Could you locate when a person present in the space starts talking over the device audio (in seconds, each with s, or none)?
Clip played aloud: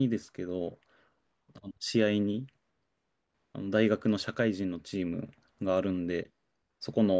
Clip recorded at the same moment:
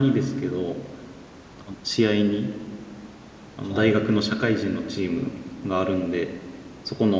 3.6 s